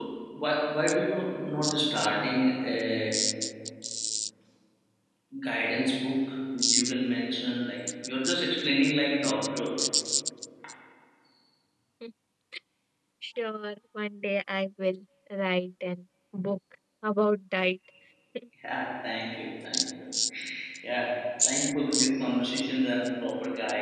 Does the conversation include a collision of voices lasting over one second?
No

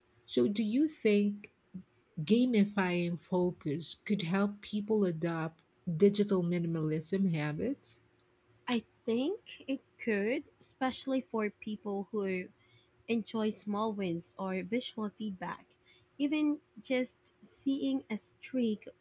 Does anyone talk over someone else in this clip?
No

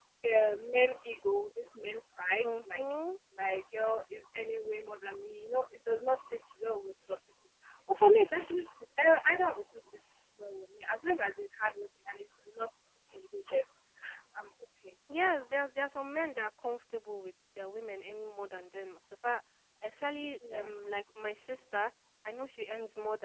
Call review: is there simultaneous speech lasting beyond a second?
No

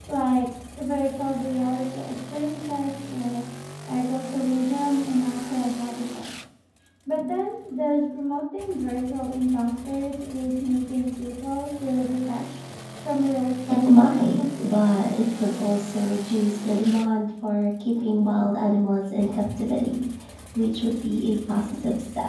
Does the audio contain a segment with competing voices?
Yes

